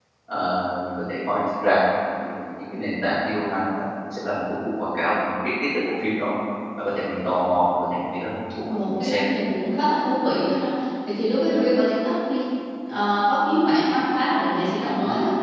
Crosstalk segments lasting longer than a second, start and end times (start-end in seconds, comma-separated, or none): none